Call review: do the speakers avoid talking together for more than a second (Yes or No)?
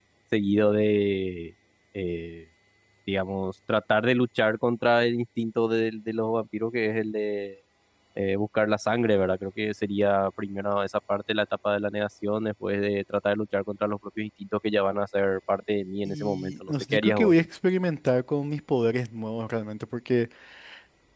No